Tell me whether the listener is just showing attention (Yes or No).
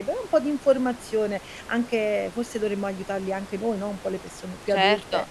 No